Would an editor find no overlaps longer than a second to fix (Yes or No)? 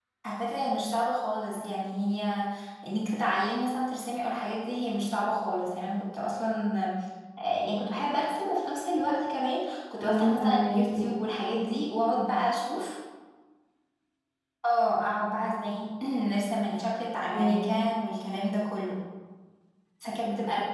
No